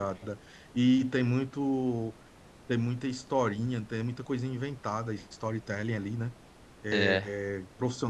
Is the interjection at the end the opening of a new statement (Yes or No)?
No